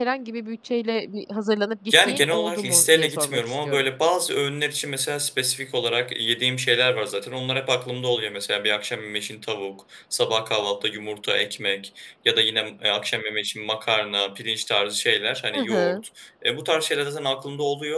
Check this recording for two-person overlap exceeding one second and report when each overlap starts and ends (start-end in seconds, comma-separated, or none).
1.9-3.9